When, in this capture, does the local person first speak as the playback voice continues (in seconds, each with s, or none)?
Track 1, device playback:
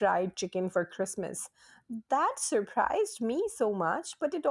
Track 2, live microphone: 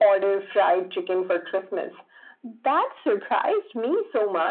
none